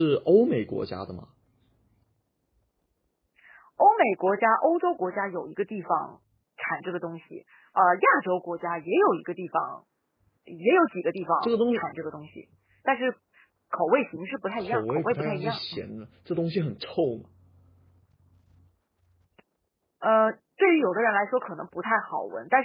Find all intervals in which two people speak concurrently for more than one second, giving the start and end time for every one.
14.6-15.8

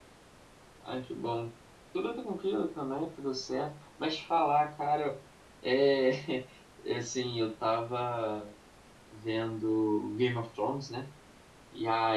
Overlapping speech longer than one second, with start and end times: none

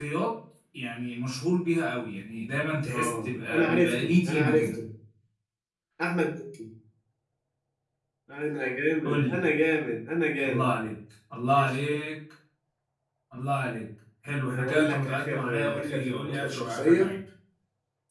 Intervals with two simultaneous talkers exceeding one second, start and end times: 2.9-4.8, 14.5-17.1

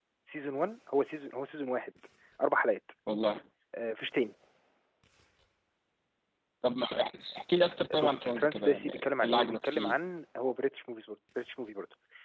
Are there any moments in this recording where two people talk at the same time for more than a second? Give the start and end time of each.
8.0-9.9

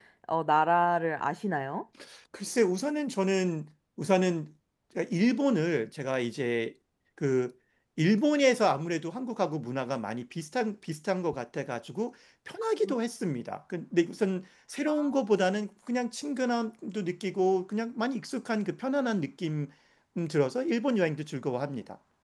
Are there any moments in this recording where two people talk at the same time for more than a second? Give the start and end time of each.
none

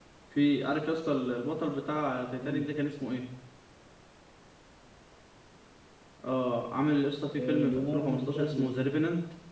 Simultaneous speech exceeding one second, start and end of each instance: 7.3-8.7

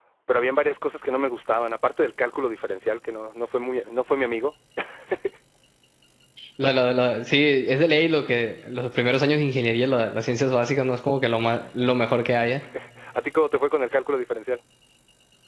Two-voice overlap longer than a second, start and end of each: none

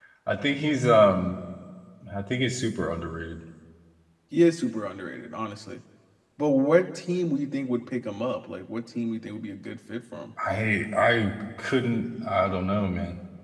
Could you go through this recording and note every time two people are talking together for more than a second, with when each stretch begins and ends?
none

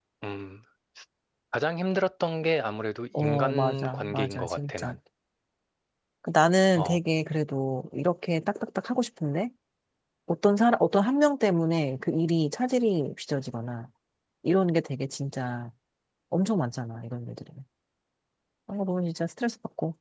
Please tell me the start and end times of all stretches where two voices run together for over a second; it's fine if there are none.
3.2-4.9

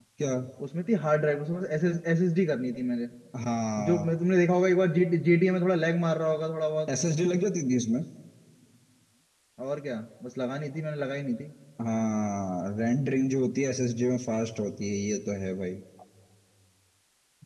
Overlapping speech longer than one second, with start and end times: none

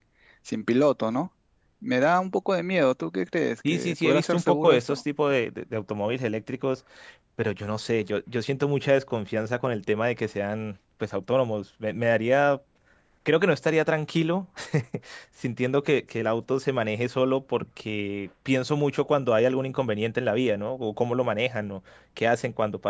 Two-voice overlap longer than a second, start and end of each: 3.7-5.0

